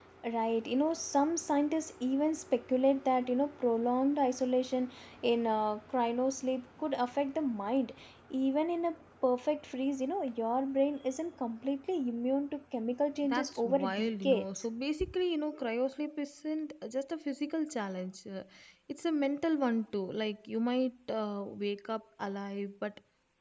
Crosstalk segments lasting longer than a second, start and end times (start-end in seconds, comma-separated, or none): 13.2-14.7